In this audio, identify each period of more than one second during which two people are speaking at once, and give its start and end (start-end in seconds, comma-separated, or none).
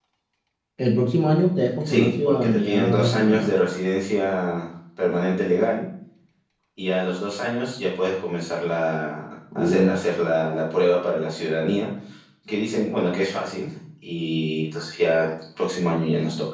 1.8-3.5